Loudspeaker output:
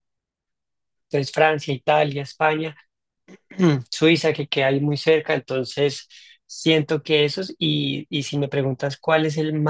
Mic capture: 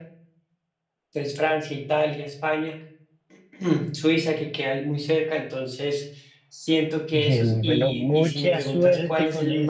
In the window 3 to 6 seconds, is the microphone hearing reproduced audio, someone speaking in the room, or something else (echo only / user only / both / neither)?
echo only